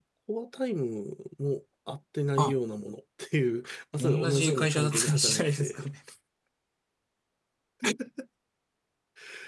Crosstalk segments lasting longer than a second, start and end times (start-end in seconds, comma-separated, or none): 4.0-5.9